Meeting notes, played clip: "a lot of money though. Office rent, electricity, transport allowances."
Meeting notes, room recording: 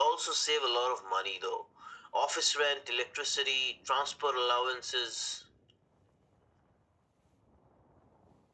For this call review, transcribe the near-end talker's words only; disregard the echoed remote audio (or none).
none